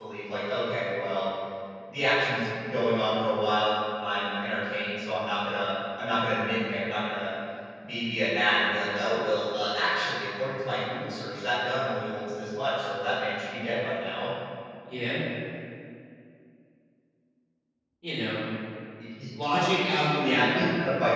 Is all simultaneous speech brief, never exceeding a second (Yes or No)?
Yes